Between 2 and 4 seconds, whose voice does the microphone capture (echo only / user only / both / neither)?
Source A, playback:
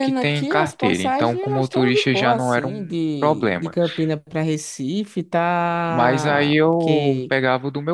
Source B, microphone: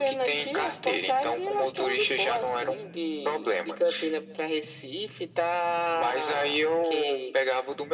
echo only